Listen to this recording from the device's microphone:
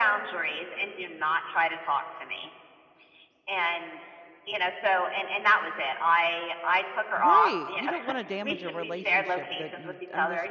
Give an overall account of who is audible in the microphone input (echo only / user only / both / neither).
both